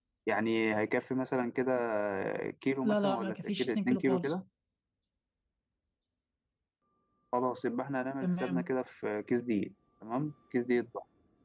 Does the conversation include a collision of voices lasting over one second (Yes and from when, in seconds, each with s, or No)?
Yes, from 2.8 s